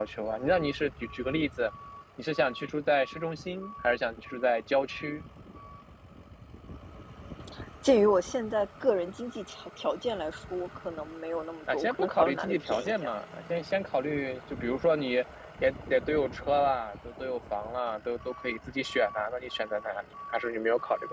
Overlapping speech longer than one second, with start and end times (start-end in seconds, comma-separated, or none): 11.7-13.2